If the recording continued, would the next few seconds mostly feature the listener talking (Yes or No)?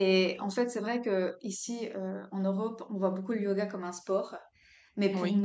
No